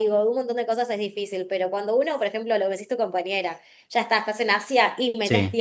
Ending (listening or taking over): listening